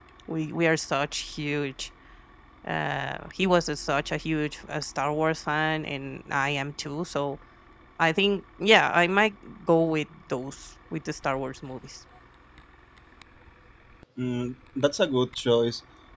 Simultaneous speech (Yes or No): No